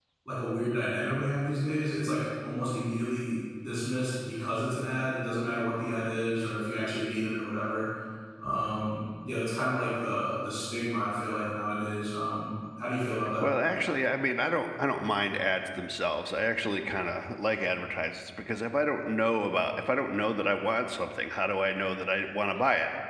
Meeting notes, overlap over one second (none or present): none